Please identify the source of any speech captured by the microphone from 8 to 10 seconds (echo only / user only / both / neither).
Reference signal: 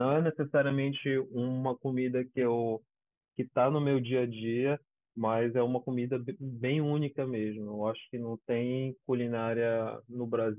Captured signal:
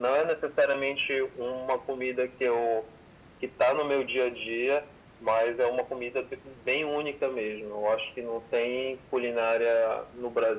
echo only